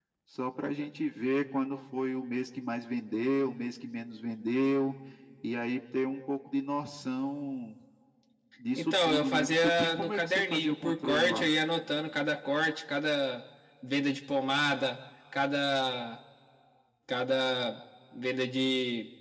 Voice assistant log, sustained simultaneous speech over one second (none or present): present